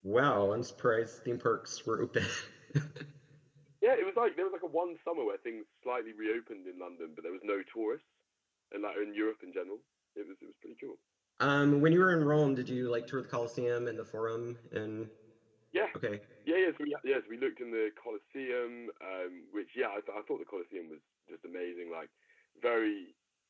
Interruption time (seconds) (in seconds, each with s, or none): none